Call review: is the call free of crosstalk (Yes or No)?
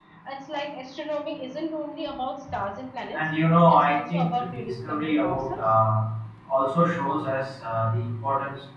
No